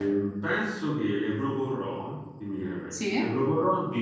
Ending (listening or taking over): listening